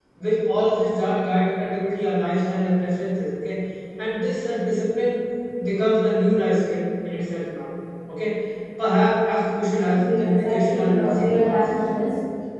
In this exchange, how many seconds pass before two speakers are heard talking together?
9.9 s

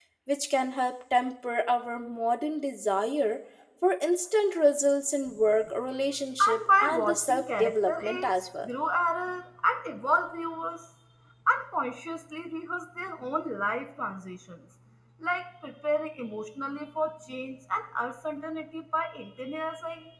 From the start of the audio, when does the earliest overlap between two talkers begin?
6.4 s

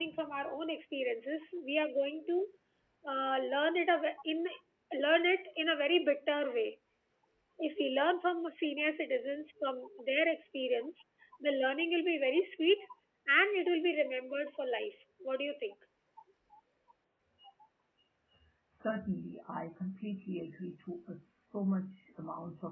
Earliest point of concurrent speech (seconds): none

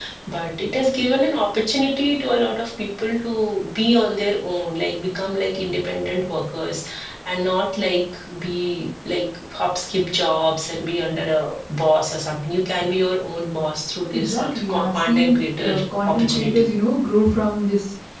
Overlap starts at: 14.1 s

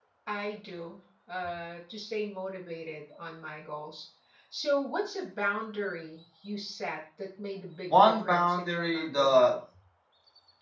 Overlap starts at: 7.9 s

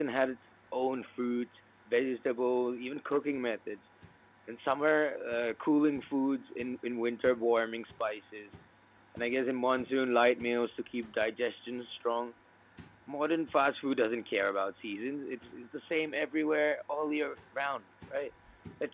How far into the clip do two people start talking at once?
none

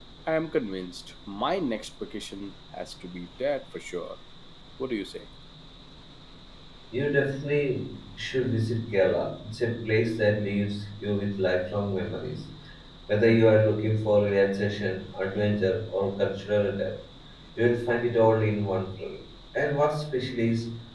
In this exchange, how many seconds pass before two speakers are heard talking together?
none

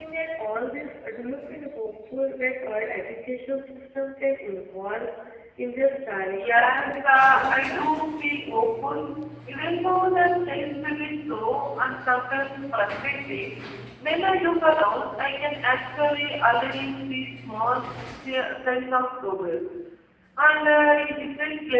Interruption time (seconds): 6.3 s

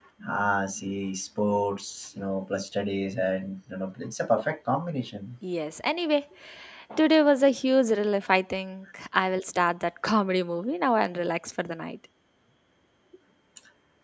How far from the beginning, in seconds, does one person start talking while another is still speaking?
none

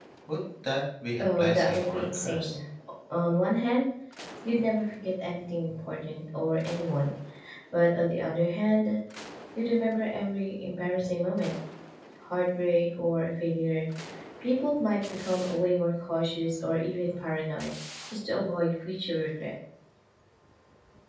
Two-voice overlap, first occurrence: 1.2 s

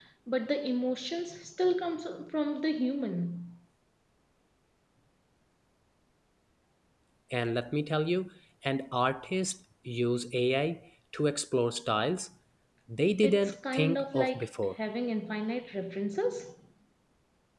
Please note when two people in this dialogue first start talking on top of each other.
13.2 s

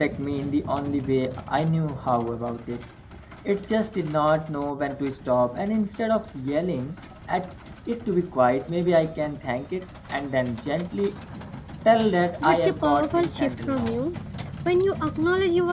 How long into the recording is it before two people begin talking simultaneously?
12.4 s

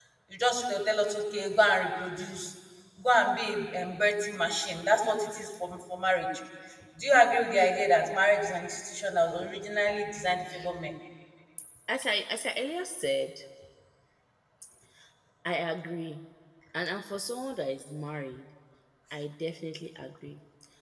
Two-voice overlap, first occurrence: none

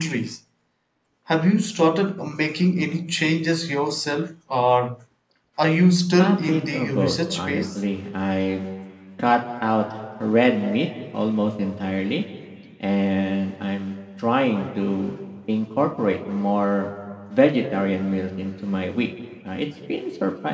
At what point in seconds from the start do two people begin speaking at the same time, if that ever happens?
6.2 s

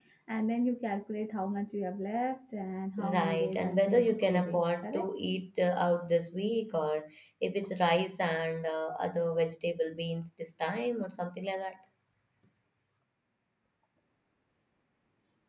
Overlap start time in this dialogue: 3.0 s

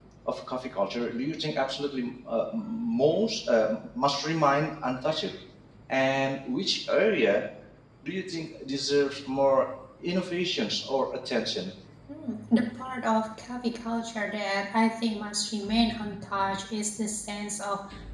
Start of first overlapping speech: none

